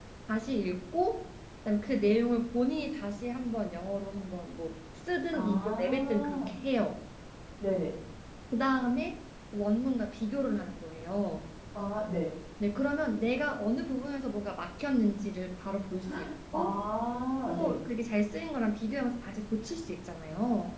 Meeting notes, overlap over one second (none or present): present